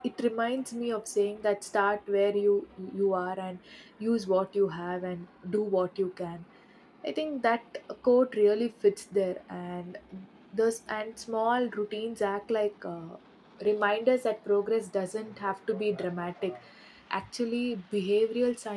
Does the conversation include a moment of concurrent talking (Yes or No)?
No